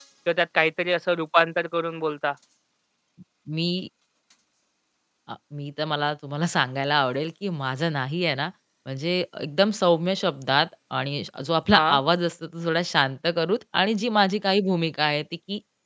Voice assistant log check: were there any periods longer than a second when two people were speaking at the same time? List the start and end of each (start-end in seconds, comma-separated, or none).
none